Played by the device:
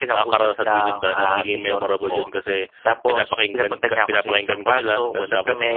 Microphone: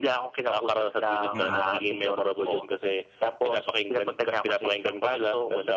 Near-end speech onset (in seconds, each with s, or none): 1.3 s